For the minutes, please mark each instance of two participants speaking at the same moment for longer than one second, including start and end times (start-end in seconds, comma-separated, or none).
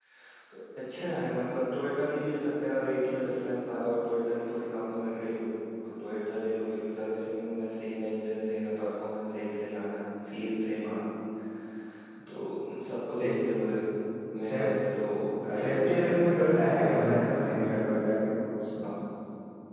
15.5-18.0